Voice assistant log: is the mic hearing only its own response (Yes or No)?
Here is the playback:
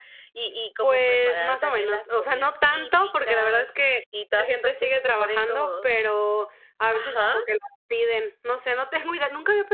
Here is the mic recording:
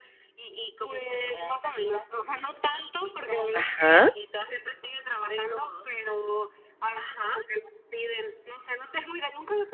No